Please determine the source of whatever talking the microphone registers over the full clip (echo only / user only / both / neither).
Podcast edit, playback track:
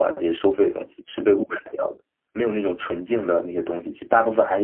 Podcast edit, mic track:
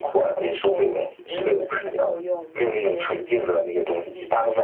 both